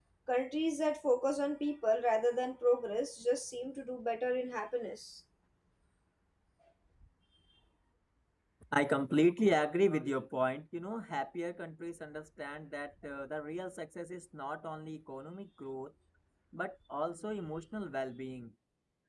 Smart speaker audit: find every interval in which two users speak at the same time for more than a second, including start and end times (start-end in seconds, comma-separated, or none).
none